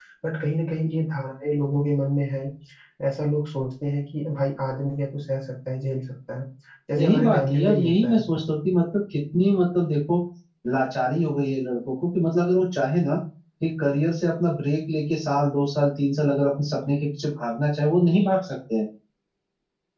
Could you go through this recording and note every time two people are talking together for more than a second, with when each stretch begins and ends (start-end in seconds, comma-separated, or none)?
7.0-8.2